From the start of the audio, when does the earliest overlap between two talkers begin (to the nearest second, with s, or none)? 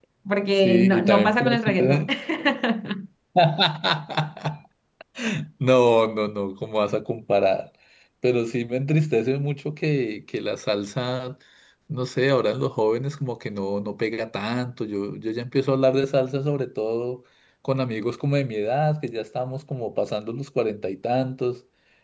1 s